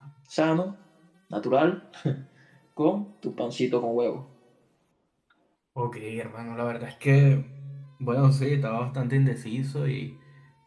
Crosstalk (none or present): none